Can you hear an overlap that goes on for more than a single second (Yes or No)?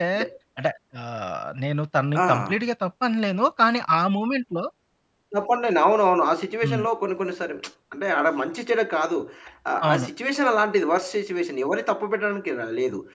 No